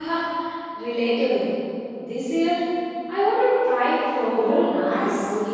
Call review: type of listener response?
taking over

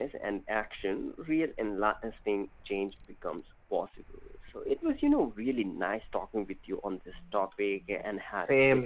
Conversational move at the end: taking over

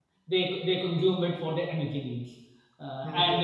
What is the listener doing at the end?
listening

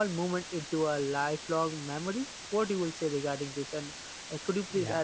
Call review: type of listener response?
taking over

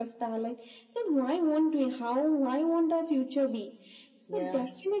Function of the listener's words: listening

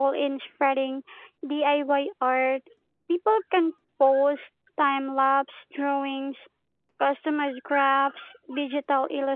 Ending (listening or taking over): listening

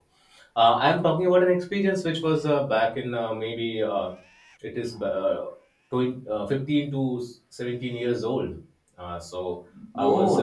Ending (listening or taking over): taking over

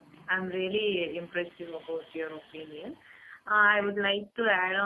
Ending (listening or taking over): listening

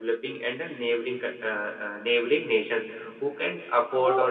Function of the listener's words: taking over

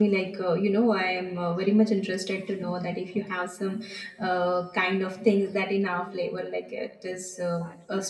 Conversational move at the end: taking over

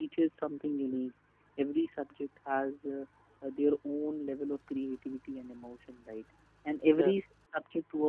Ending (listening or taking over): listening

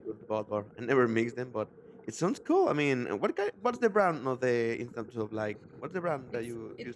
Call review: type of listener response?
taking over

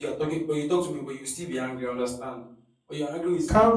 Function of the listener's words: taking over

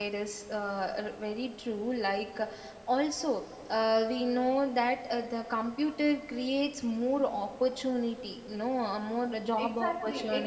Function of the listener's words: taking over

